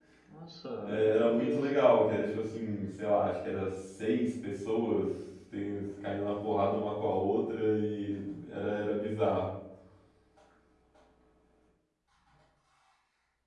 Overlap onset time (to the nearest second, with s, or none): 1 s